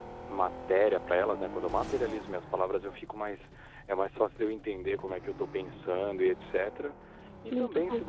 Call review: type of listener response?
listening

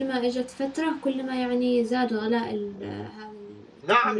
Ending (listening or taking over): taking over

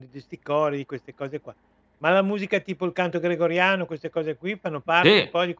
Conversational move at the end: taking over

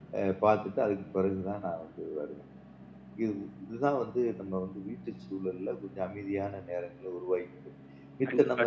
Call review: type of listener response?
listening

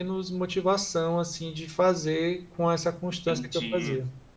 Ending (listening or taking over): taking over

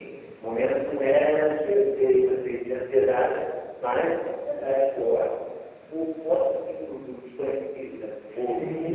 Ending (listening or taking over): taking over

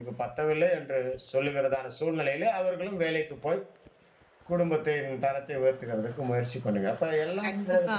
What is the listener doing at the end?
taking over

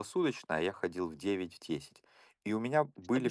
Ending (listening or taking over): listening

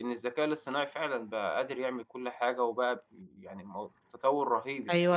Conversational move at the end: taking over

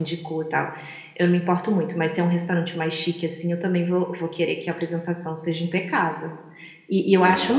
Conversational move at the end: listening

